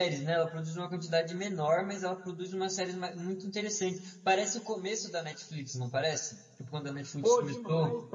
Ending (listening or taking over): taking over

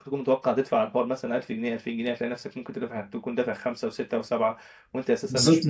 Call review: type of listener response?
taking over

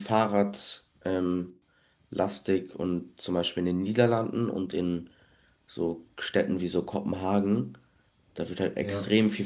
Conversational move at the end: listening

